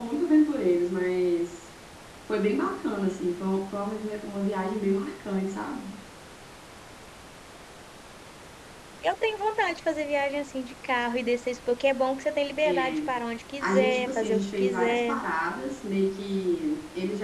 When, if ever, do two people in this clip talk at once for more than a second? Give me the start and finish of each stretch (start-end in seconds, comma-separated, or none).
13.6-15.2